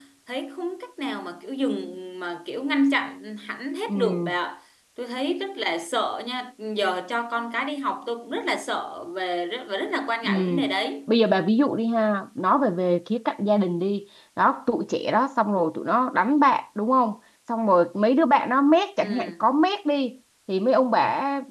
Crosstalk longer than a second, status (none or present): none